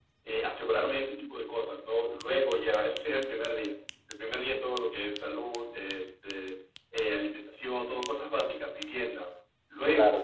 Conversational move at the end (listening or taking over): listening